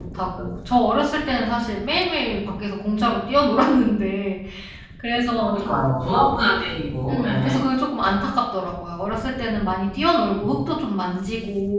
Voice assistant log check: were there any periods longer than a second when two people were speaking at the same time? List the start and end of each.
none

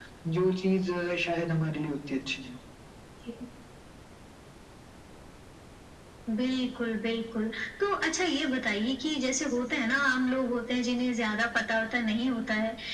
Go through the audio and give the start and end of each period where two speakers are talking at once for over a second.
none

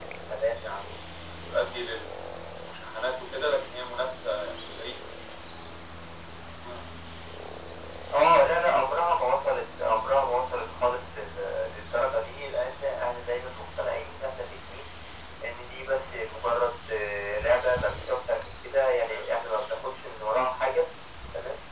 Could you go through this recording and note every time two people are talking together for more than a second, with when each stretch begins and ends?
none

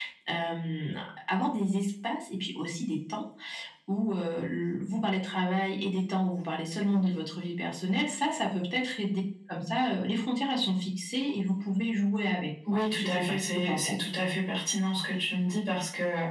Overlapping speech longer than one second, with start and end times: 12.7-14.0

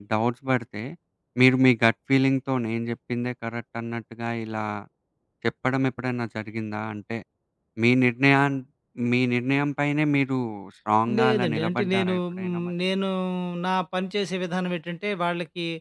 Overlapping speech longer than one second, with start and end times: 11.2-12.7

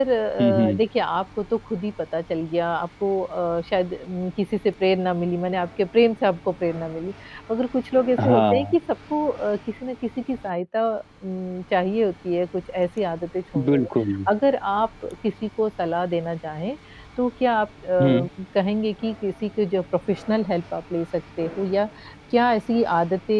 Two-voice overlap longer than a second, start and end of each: none

